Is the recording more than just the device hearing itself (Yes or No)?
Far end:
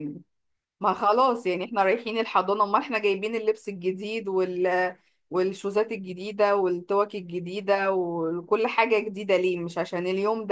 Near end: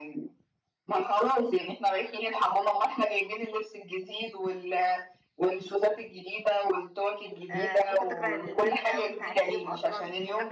Yes